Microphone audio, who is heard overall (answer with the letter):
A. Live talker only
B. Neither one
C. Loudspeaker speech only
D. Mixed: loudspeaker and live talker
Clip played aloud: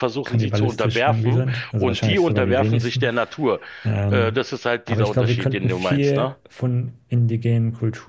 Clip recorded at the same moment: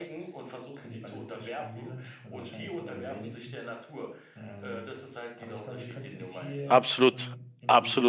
D